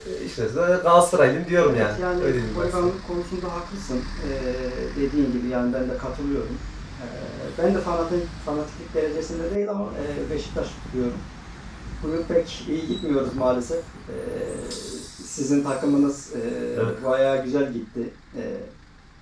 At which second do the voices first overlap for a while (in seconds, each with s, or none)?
1.6 s